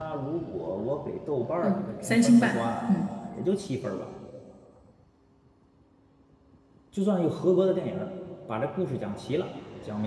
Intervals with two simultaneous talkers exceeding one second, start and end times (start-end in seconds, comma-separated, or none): 1.6-3.1